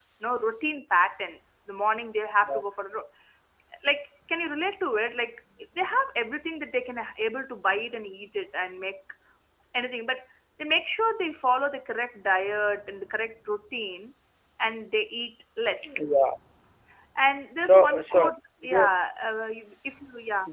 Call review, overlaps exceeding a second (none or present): present